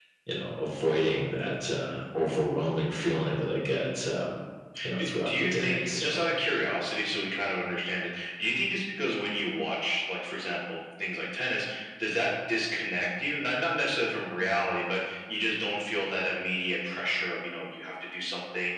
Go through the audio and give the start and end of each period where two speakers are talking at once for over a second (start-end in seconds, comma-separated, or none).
5.0-6.2